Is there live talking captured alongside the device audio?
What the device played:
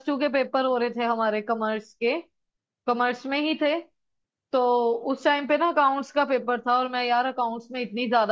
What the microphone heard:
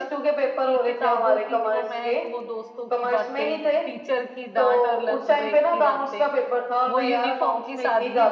Yes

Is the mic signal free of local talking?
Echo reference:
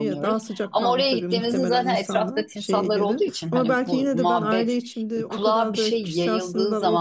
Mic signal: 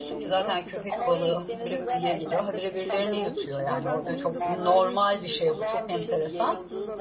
No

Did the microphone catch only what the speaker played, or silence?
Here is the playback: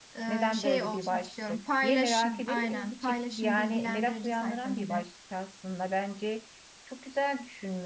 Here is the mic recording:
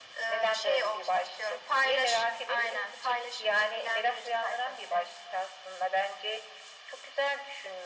Yes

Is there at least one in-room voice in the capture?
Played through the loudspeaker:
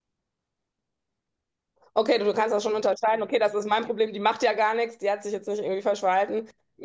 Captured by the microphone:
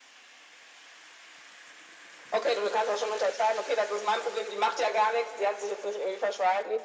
No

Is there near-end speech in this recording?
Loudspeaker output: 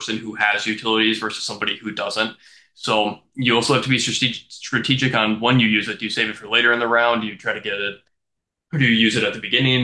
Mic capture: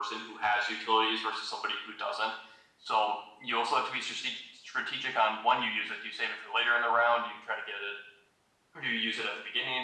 No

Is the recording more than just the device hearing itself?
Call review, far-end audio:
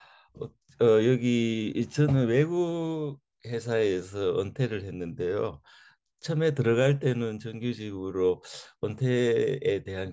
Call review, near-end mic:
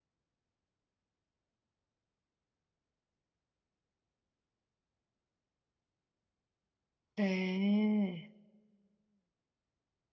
Yes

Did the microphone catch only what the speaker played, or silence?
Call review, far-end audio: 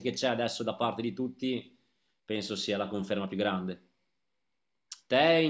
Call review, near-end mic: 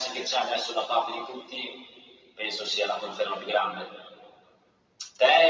Yes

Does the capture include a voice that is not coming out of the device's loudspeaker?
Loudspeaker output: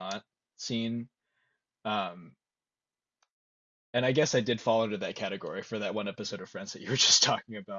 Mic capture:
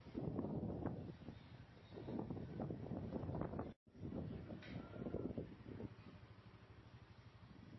No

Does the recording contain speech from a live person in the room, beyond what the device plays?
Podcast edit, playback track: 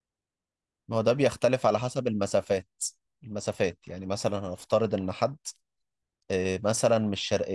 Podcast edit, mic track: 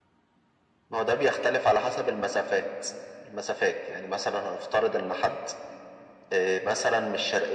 No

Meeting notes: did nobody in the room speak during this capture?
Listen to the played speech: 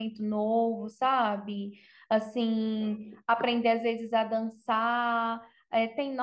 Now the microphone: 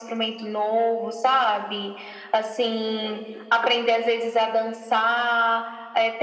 Yes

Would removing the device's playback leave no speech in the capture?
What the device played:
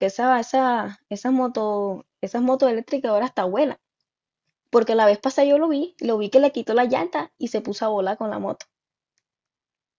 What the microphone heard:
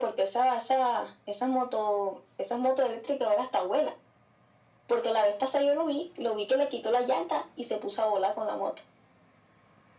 Yes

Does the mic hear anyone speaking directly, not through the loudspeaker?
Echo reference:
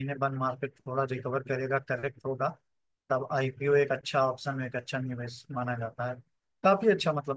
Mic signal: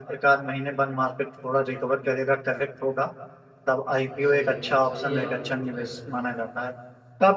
Yes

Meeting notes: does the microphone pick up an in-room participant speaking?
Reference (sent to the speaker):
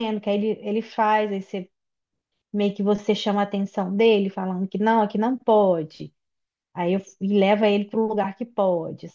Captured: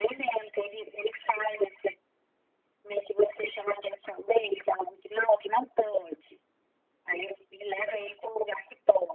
No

